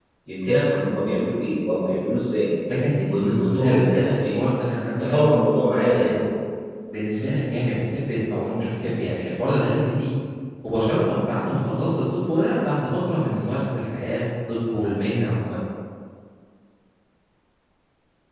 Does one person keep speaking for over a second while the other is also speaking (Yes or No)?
Yes